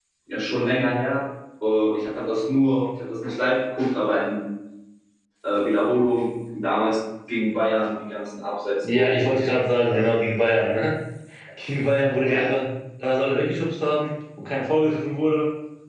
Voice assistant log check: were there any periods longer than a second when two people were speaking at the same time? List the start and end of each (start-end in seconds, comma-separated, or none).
8.8-10.1